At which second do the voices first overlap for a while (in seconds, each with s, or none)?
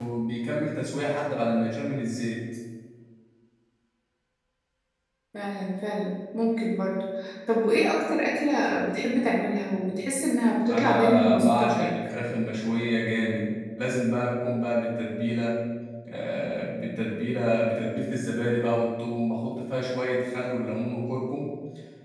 10.7 s